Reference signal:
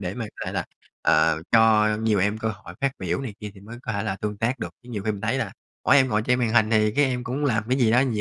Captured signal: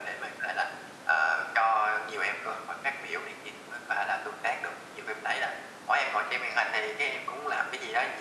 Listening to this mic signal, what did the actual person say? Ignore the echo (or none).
none